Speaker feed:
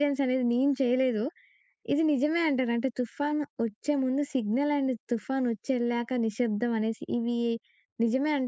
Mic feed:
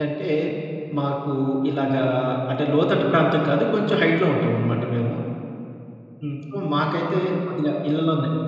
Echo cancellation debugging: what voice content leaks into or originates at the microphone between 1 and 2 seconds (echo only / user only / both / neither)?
user only